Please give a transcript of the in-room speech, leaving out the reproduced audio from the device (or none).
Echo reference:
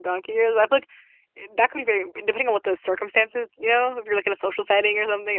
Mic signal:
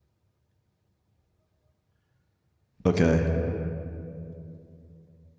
Okay,